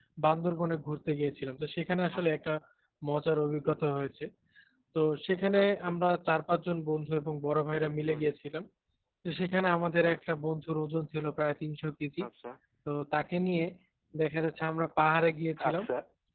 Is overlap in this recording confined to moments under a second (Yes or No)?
Yes